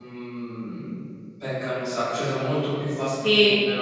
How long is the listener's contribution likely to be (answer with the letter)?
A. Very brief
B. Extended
B